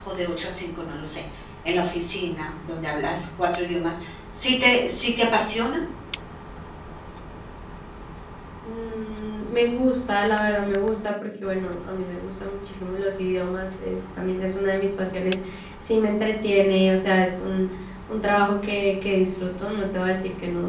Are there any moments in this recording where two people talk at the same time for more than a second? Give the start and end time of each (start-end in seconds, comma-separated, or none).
none